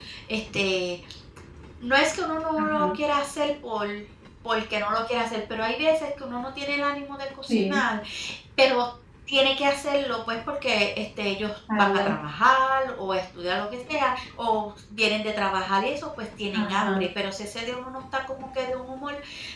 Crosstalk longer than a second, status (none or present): none